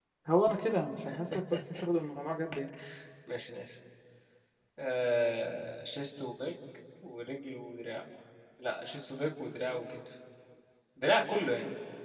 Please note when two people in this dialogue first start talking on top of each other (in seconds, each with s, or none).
none